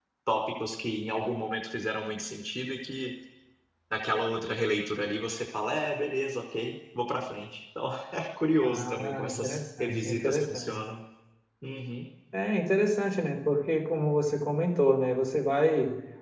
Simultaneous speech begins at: 8.6 s

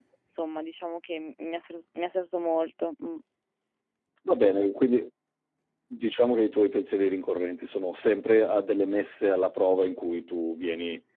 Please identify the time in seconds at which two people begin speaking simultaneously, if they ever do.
none

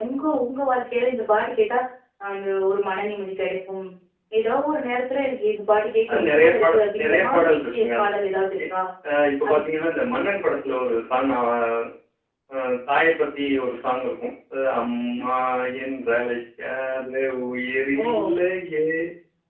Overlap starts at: 6.1 s

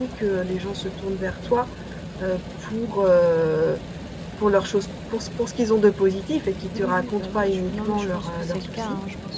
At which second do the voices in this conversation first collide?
6.7 s

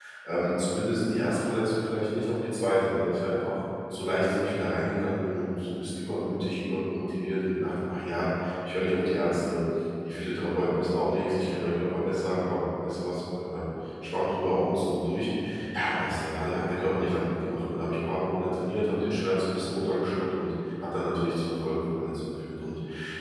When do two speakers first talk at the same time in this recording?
none

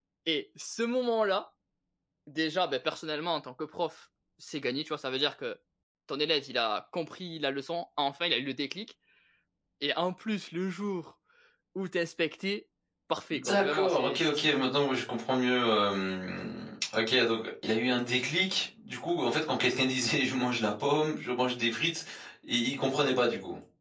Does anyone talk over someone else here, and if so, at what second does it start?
13.3 s

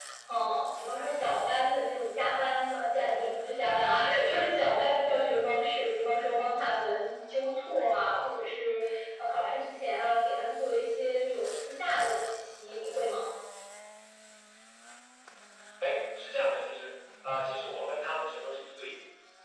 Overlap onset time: none

